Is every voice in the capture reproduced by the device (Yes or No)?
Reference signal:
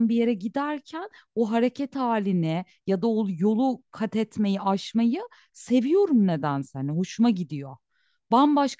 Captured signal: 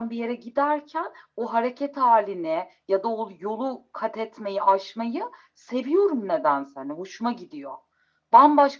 Yes